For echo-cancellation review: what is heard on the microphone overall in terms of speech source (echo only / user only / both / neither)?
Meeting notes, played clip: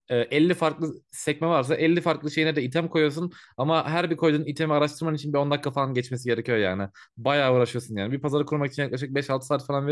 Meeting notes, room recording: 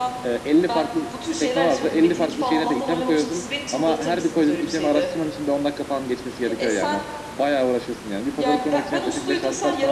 both